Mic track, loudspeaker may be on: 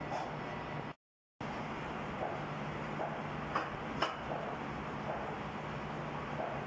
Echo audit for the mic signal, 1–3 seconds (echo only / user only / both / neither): neither